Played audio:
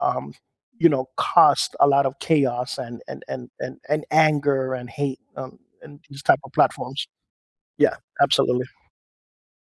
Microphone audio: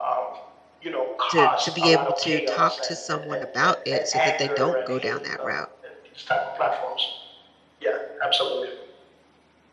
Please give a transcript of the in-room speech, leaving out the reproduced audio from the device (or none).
to to be able to talk to someone about it so that they don't go down that route.